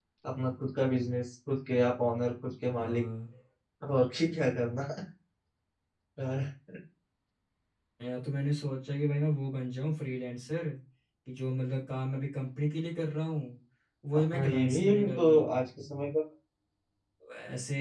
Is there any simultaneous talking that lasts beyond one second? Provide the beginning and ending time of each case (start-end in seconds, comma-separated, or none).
14.1-15.4